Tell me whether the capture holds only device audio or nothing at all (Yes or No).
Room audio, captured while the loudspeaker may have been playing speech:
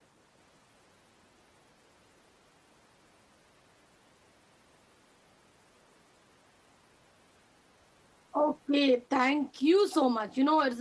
No